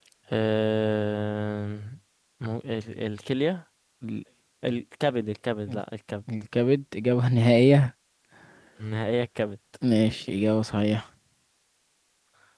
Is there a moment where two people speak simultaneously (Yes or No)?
No